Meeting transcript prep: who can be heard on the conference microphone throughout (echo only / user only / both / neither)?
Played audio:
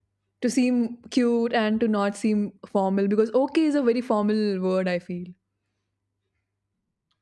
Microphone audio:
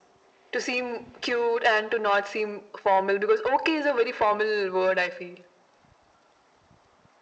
echo only